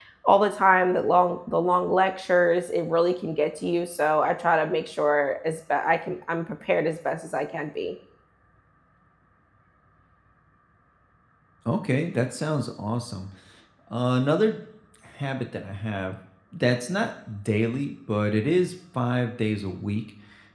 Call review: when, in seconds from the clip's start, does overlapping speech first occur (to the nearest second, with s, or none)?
none